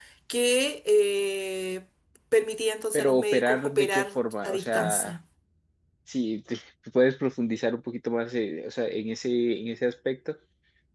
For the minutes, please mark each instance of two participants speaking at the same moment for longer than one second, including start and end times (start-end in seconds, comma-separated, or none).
2.9-5.1